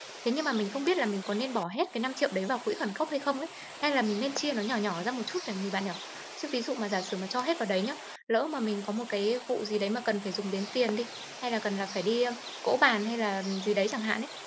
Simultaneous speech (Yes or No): No